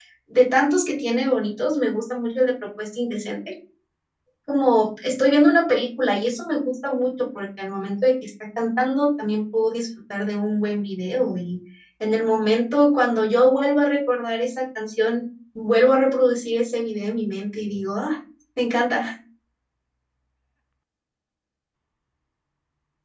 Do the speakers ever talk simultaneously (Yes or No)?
No